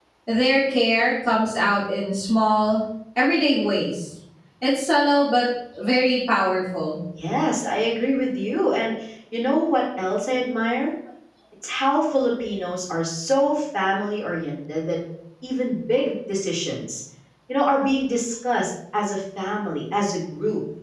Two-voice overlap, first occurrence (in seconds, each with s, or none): none